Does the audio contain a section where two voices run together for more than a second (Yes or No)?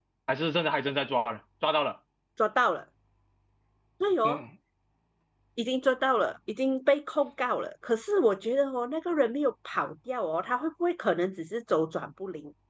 No